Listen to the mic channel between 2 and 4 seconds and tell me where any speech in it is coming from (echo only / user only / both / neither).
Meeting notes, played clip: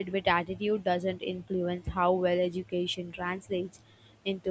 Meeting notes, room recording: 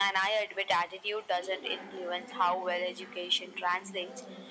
both